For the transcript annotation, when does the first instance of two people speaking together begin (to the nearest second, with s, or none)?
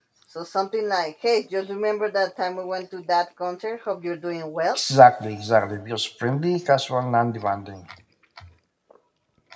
none